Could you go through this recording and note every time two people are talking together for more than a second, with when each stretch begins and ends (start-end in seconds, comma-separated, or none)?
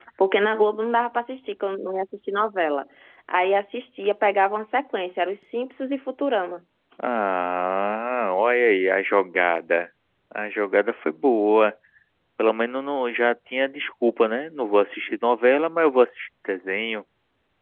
none